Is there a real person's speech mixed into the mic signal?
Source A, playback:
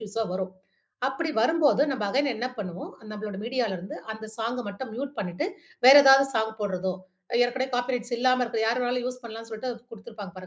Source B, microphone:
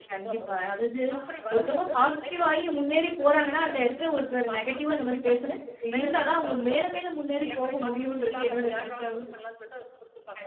Yes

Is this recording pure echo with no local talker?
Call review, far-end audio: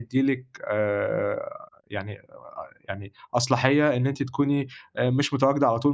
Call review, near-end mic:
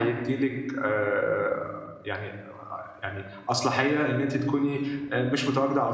Yes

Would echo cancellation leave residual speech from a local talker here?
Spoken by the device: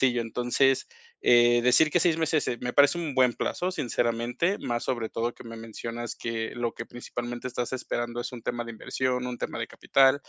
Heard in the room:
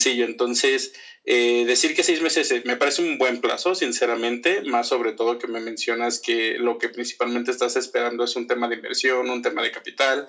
No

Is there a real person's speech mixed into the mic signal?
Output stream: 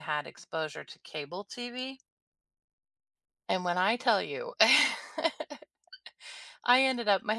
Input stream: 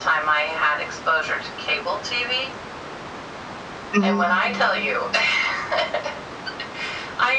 Yes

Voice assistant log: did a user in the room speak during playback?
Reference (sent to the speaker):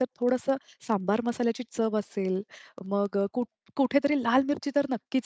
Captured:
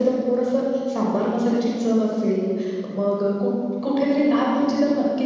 No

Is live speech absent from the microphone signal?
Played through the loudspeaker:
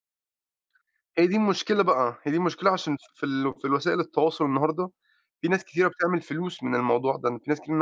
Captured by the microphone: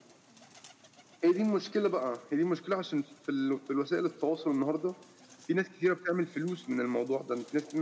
Yes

